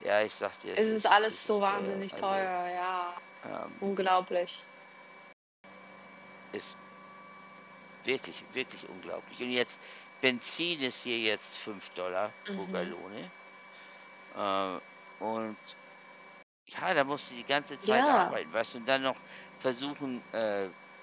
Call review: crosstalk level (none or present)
present